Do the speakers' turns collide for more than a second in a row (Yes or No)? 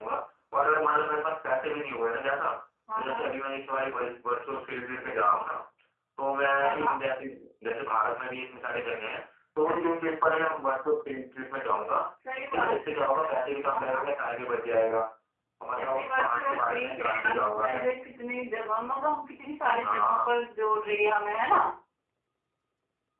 Yes